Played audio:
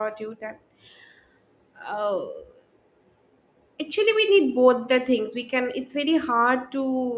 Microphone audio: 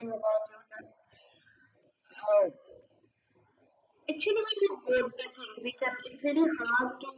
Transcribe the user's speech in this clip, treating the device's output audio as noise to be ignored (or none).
none